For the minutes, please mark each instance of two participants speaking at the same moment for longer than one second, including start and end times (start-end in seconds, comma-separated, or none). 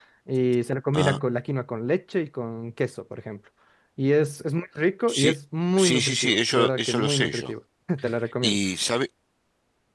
5.8-7.5